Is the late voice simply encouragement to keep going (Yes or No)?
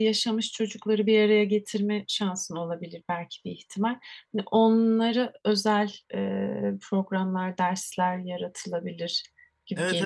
No